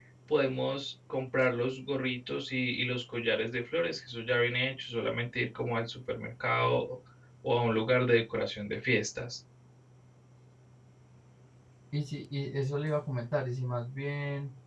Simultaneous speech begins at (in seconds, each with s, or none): none